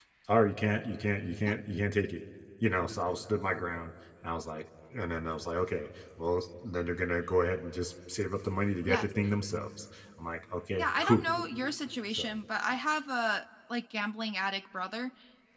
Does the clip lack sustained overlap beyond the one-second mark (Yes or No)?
Yes